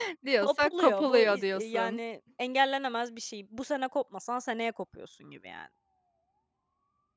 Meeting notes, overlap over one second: present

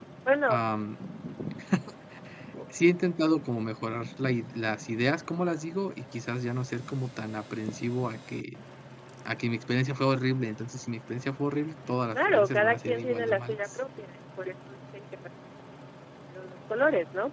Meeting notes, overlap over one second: present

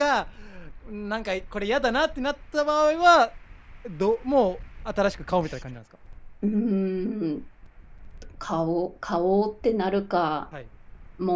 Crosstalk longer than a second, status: none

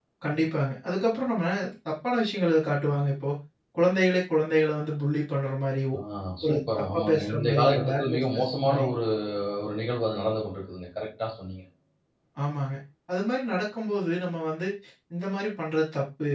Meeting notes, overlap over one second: present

